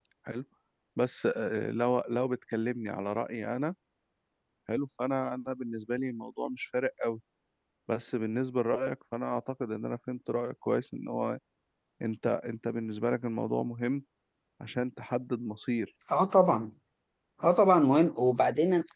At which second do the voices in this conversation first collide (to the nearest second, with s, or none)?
none